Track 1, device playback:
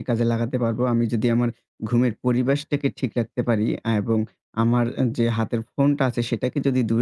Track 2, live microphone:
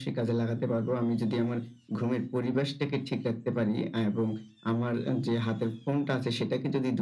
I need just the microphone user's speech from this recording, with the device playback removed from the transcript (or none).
none